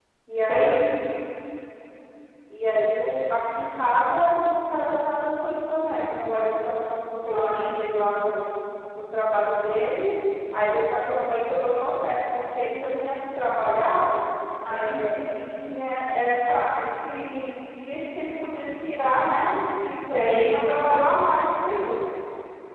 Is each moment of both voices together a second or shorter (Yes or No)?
Yes